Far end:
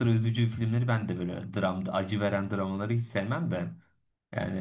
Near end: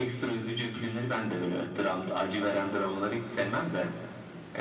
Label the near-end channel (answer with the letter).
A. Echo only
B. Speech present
A